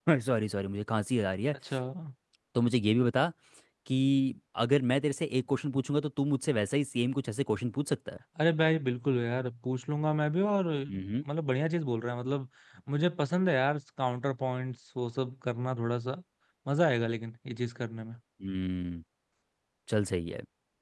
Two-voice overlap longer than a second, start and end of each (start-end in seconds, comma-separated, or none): none